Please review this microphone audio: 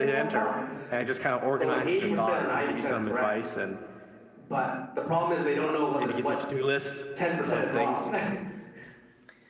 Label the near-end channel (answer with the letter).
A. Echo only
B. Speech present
B